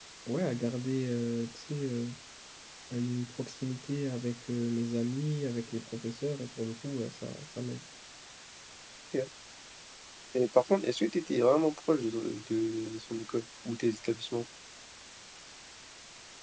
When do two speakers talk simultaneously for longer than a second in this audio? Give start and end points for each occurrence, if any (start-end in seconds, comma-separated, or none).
none